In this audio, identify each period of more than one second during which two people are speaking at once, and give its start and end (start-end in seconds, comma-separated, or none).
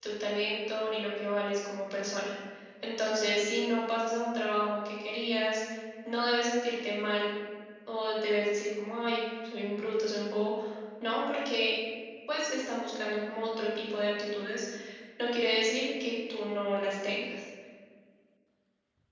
none